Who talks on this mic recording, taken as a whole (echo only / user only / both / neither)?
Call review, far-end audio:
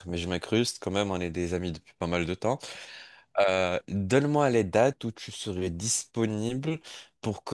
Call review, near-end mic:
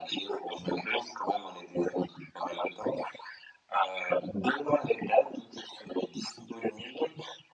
echo only